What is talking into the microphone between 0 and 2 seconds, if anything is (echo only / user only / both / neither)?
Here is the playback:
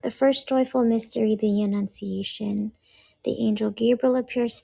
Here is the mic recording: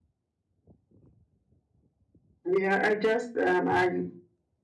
neither